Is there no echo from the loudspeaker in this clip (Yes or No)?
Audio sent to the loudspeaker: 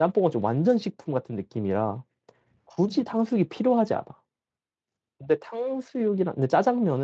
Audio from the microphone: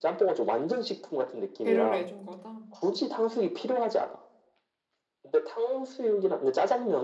No